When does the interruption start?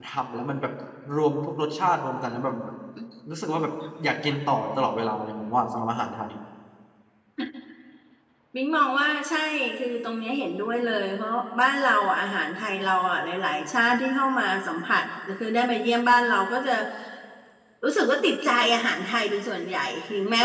none

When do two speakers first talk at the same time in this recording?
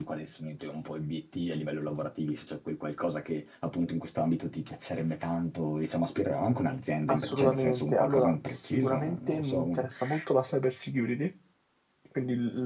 7.1 s

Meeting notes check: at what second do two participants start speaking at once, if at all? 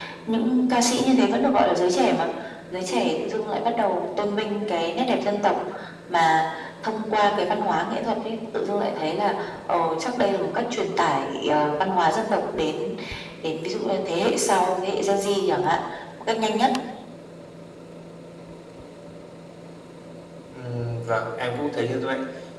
none

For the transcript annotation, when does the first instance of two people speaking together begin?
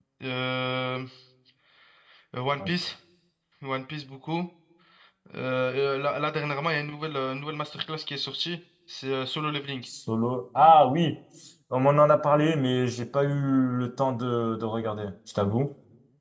none

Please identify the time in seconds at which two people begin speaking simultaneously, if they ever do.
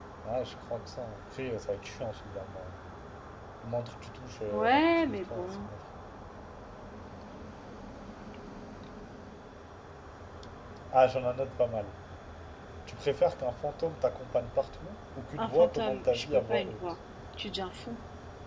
4.5 s

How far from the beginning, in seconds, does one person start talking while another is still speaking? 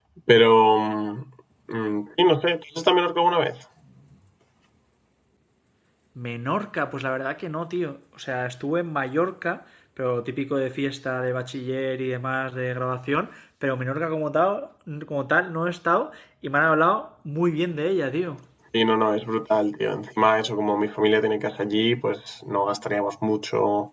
none

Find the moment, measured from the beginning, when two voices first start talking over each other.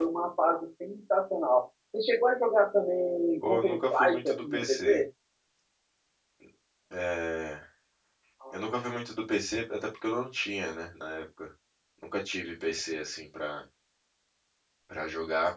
3.4 s

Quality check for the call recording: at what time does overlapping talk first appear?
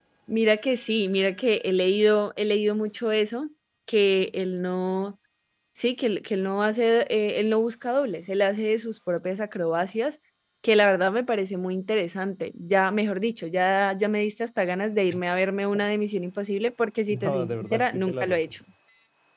17.1 s

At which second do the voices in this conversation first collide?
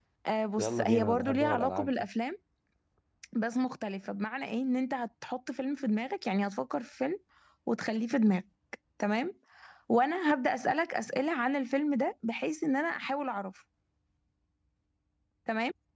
0.6 s

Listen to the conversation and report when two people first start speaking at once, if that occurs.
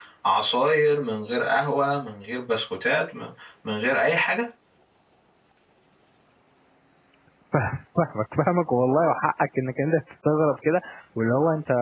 none

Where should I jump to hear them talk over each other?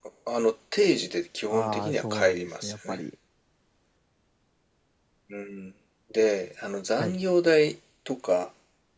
1.4 s

